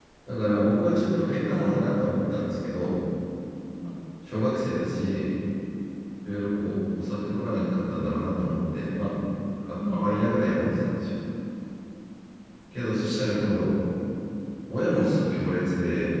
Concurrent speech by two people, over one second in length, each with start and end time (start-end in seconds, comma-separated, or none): none